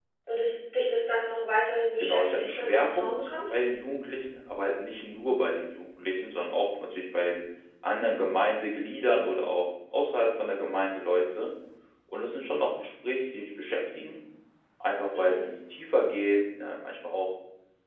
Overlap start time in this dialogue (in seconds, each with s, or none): 2.0 s